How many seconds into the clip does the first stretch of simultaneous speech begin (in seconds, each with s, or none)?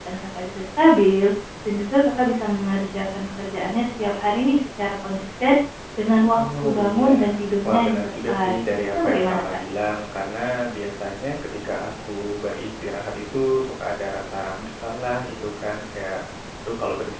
6.3 s